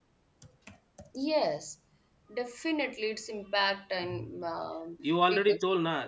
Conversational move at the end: taking over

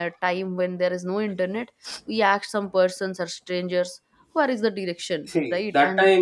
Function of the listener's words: taking over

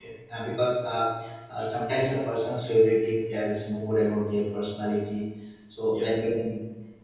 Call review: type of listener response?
listening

